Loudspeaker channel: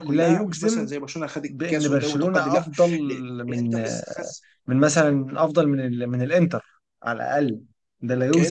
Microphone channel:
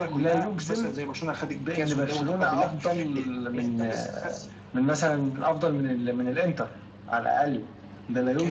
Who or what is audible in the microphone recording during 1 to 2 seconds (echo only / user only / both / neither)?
echo only